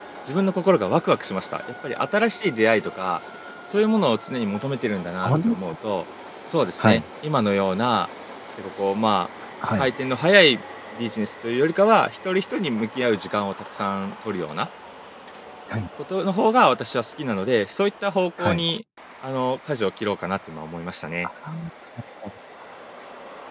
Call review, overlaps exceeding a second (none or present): none